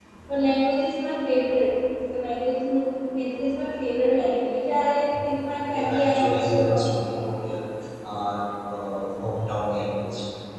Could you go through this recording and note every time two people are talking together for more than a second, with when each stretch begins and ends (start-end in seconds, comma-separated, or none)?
5.7-7.4